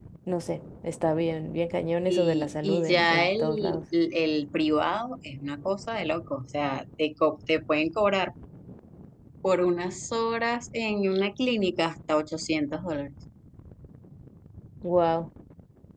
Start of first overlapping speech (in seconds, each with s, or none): 2.1 s